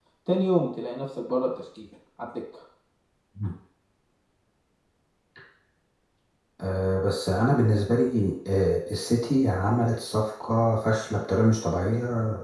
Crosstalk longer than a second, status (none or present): none